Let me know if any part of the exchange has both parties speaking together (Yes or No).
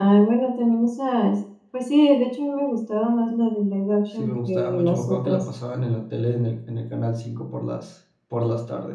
Yes